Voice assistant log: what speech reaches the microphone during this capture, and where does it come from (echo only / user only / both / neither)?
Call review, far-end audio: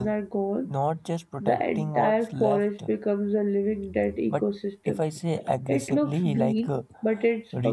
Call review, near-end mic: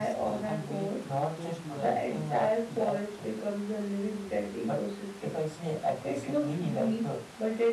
both